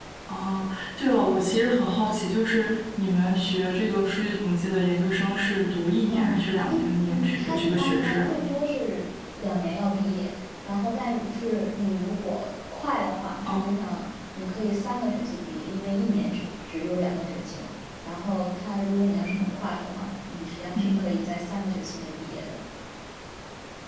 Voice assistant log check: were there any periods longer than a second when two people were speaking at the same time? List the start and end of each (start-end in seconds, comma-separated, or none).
6.1-8.3